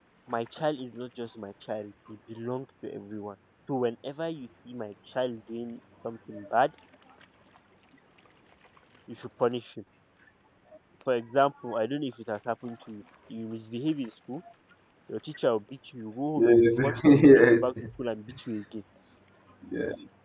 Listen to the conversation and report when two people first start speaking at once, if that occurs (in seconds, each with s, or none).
16.4 s